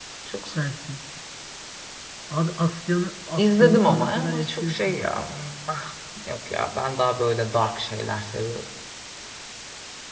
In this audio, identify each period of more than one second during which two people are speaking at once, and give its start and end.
3.4-4.8

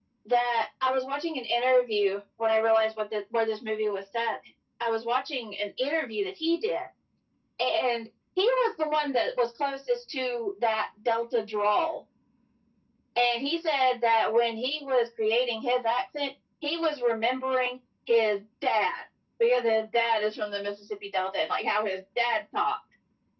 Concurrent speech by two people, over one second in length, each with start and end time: none

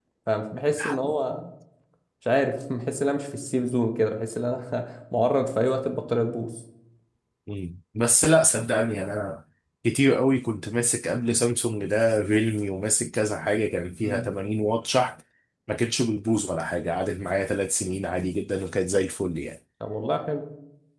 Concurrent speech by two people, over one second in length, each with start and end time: none

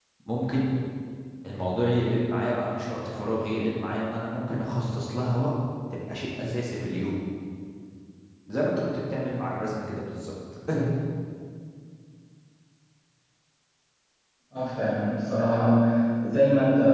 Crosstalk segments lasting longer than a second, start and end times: none

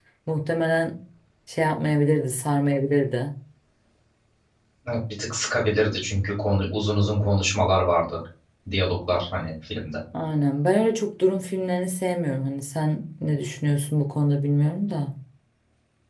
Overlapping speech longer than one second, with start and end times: none

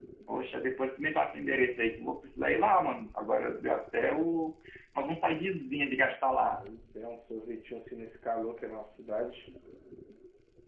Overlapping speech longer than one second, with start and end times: none

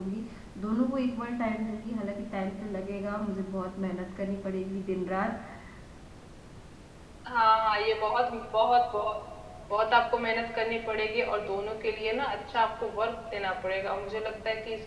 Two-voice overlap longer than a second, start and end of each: none

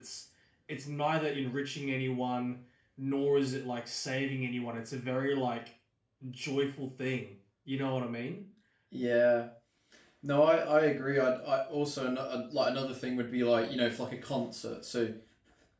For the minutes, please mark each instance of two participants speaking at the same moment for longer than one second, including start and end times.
none

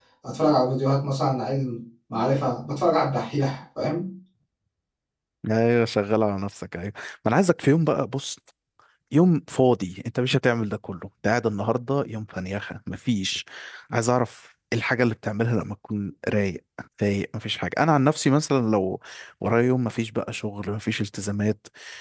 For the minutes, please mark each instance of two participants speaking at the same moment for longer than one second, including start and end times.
none

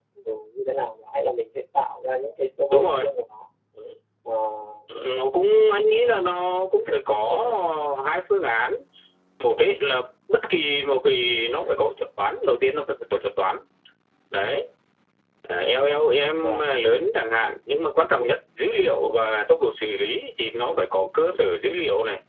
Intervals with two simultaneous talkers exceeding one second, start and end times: none

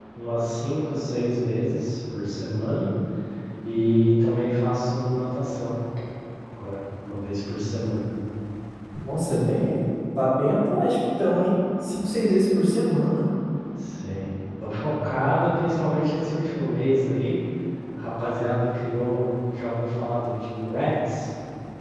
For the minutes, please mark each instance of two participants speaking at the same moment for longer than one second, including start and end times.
none

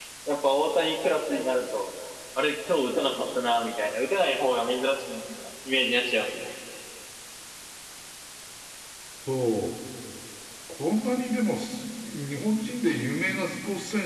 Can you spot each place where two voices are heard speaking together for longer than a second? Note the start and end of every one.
none

